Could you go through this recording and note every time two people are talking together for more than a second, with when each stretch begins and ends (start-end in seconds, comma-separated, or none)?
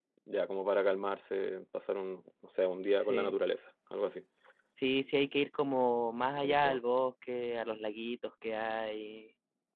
none